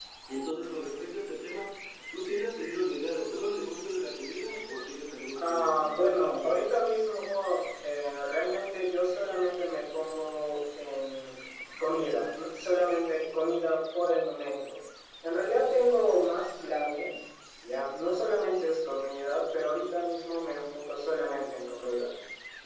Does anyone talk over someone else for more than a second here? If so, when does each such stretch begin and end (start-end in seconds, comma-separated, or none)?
5.4-6.7